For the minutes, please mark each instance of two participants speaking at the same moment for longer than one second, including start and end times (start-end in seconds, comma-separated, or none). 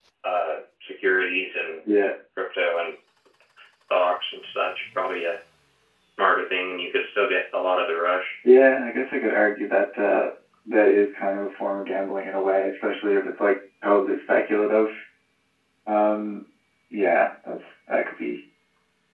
none